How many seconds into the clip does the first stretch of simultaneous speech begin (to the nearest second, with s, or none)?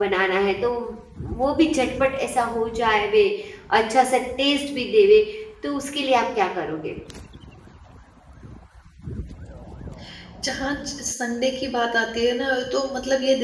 none